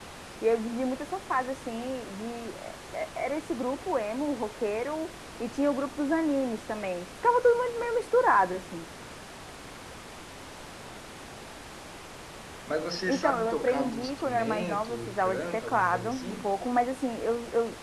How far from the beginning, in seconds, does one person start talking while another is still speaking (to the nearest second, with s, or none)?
13 s